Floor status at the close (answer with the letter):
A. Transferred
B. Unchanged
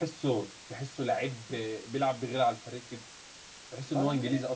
B